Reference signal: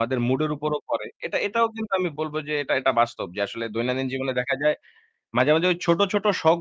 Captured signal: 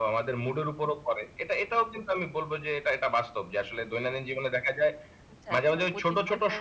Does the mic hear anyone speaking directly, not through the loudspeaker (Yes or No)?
Yes